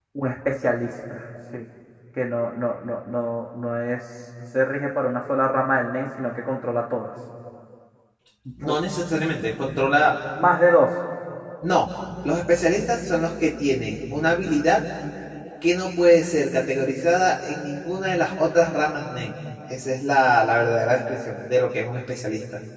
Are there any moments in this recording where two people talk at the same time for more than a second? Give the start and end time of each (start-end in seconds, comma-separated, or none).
none